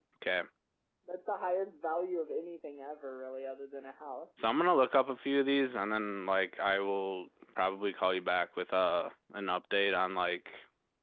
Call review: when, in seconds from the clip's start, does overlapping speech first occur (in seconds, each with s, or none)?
none